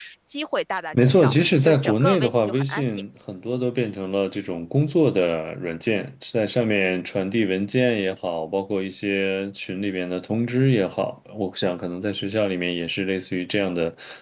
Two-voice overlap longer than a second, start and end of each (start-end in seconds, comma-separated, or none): 1.0-3.0